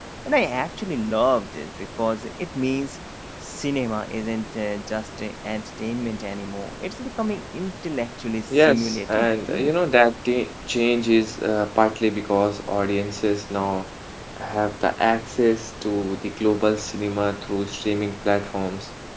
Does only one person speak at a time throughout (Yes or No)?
No